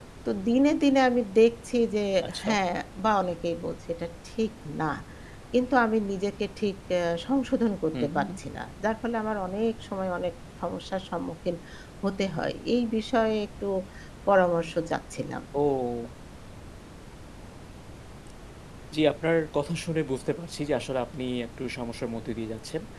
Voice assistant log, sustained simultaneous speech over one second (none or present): none